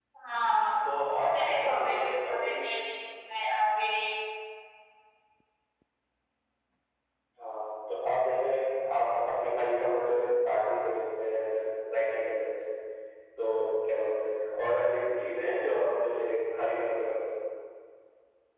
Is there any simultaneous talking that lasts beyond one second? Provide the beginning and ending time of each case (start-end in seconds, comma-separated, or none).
1.0-2.5